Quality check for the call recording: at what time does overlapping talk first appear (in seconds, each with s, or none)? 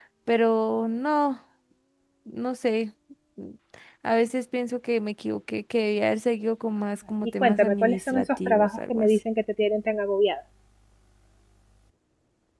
7.4 s